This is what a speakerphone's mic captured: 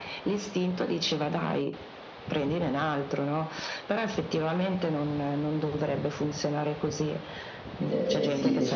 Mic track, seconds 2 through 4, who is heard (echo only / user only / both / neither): echo only